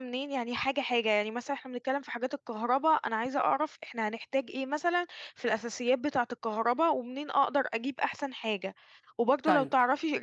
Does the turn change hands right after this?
No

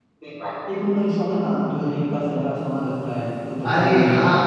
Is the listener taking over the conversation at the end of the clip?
Yes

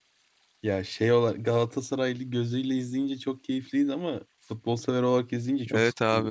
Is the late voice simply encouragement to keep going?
No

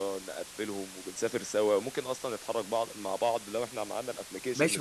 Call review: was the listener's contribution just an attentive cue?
No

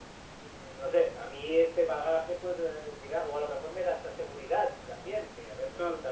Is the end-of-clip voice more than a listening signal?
No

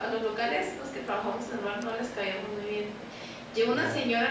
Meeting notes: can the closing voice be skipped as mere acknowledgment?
Yes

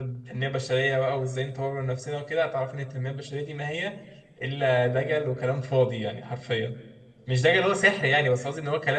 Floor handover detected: No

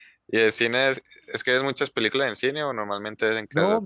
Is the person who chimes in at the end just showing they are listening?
No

